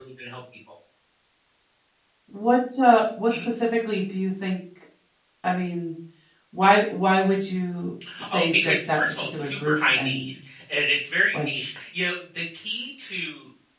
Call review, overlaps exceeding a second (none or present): present